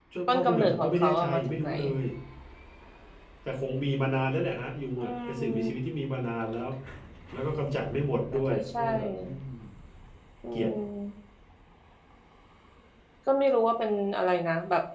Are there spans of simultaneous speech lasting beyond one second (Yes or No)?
Yes